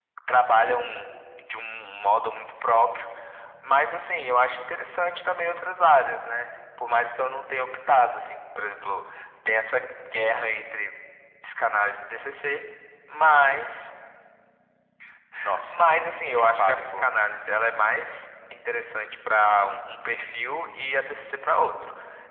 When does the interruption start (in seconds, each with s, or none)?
15.7 s